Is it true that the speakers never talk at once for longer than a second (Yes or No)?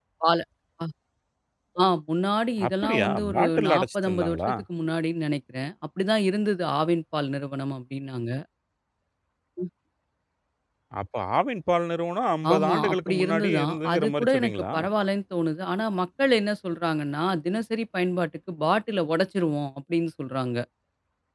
No